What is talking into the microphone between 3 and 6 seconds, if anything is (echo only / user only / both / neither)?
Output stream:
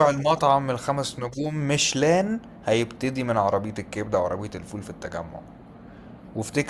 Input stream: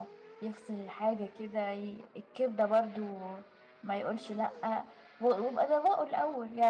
user only